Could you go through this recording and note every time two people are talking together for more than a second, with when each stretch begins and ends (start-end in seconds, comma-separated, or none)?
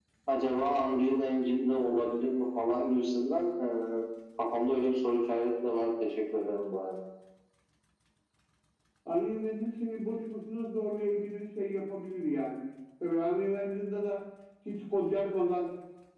none